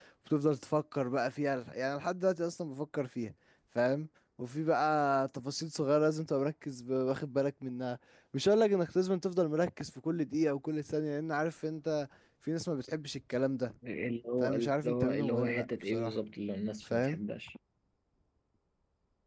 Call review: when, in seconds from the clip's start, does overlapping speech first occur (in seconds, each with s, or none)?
14.4 s